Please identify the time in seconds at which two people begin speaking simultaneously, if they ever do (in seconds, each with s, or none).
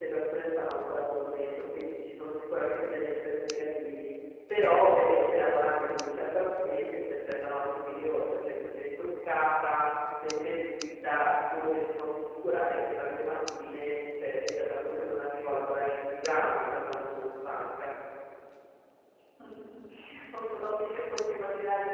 none